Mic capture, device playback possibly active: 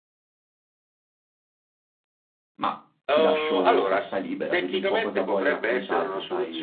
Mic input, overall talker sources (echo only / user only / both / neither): both